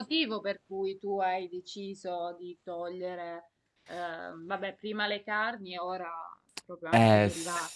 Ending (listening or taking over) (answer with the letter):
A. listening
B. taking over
B